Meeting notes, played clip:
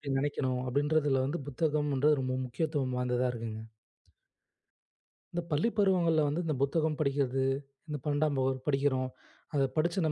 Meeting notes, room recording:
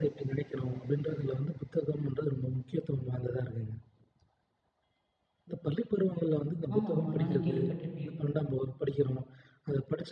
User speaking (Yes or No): Yes